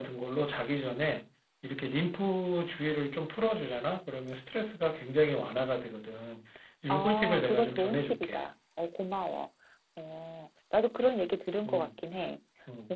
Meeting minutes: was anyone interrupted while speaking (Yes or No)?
Yes